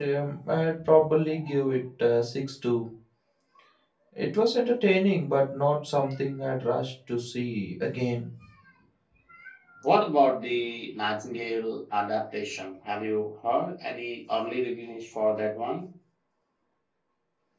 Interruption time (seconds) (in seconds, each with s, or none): none